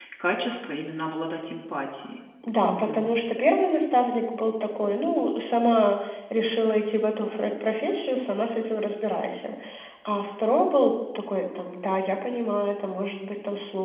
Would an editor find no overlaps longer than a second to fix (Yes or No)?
Yes